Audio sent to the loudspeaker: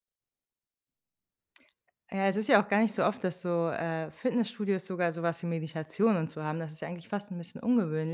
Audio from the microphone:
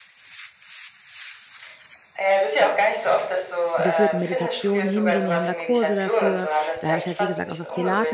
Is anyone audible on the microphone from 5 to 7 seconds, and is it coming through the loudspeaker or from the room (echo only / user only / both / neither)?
both